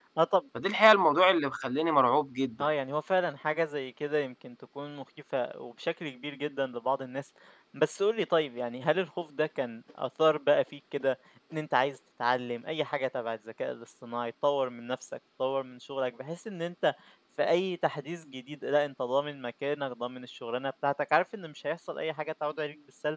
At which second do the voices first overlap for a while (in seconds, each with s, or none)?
none